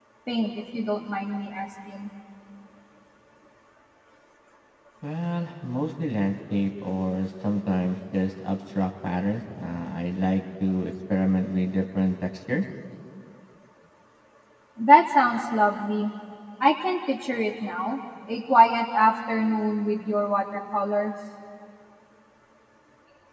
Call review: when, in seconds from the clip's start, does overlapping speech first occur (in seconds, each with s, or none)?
none